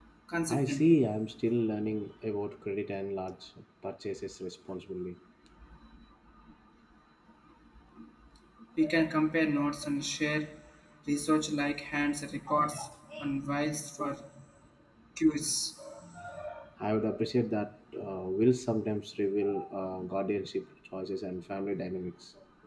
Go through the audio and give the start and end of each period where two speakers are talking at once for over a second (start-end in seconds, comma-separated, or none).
none